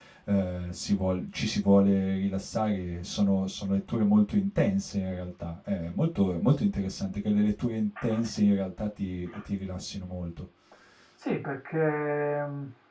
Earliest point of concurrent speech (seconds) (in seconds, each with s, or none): none